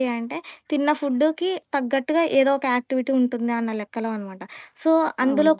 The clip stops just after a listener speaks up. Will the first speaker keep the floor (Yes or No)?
Yes